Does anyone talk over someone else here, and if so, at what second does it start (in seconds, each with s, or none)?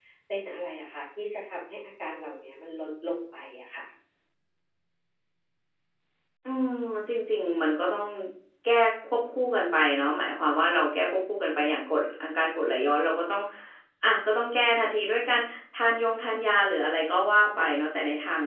none